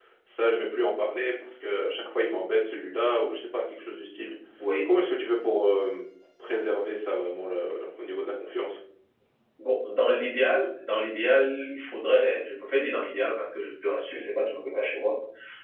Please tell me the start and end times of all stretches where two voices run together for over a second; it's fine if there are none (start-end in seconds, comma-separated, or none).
none